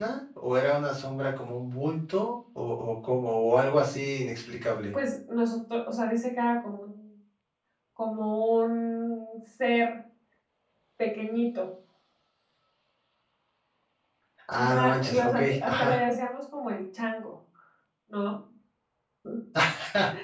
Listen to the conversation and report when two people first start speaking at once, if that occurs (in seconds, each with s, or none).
14.5 s